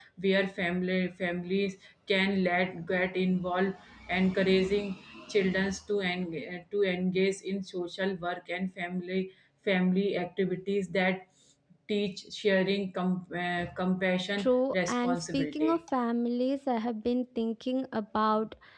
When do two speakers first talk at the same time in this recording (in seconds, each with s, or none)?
14.4 s